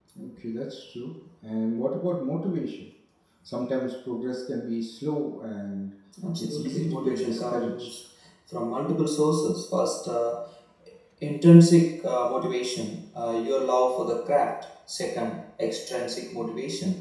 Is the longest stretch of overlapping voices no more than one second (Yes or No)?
No